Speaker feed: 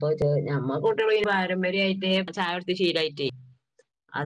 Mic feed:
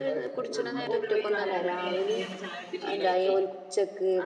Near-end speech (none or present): present